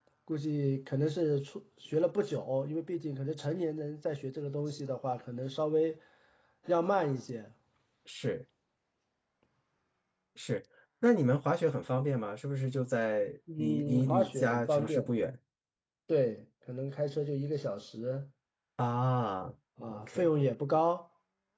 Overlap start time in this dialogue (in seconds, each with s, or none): 13.6 s